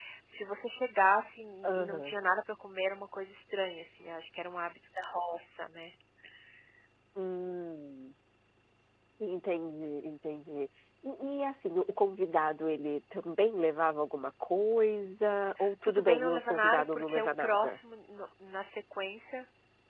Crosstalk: present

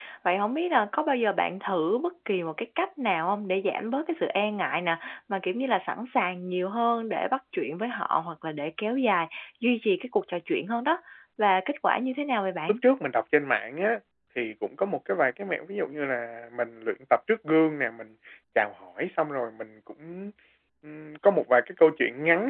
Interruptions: none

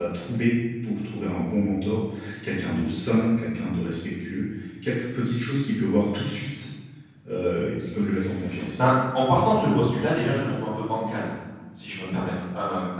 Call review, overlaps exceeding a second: none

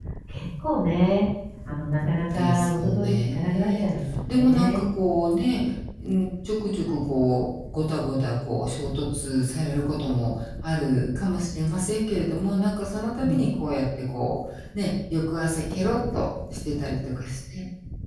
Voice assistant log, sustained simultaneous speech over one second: present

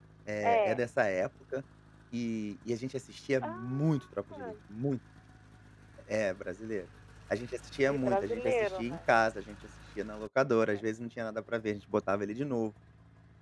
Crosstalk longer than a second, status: present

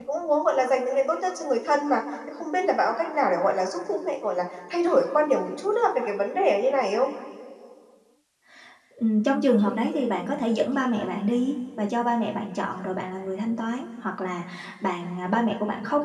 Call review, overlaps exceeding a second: none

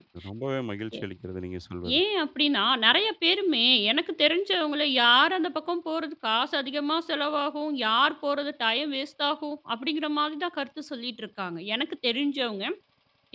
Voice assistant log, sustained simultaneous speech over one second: none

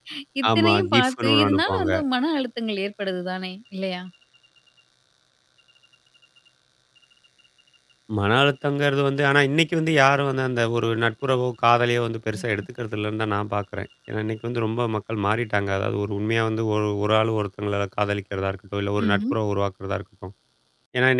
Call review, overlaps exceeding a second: present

